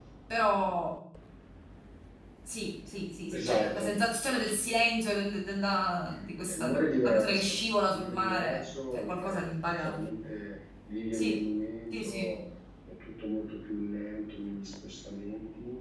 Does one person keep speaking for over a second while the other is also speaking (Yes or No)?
Yes